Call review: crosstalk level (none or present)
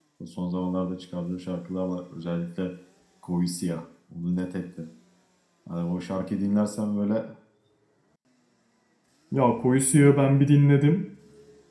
none